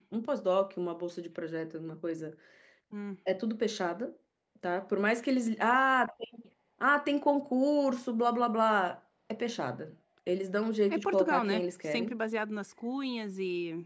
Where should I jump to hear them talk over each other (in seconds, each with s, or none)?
10.9 s